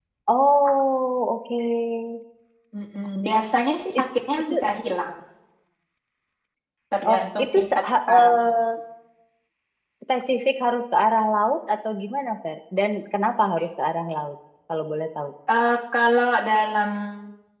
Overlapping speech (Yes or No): Yes